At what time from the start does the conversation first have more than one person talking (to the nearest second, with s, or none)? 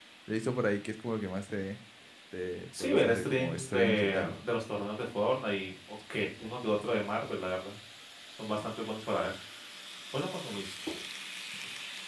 3 s